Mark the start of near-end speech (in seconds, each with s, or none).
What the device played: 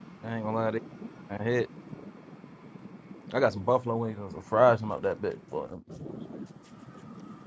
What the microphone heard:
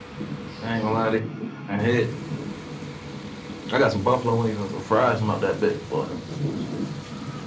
none